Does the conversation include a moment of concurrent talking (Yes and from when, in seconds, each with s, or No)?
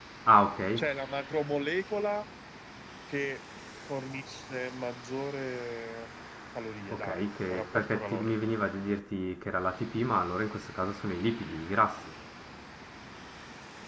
Yes, from 6.9 s